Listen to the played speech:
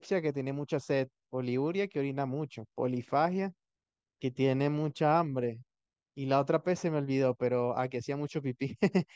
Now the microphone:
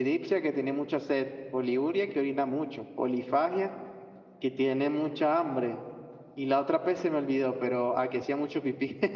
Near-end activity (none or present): none